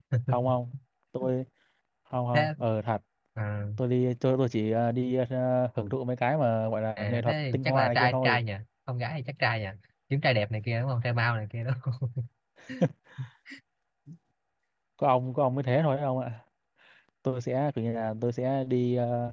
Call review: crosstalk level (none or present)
present